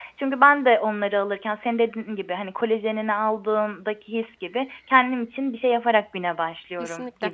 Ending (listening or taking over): taking over